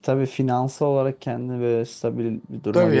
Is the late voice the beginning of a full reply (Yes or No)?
Yes